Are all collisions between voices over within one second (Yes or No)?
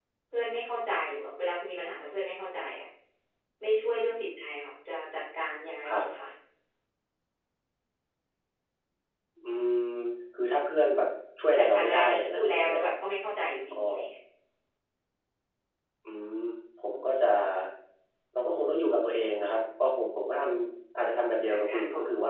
No